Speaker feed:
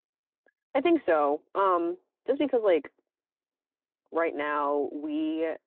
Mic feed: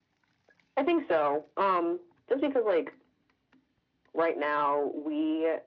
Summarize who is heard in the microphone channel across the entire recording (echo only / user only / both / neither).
echo only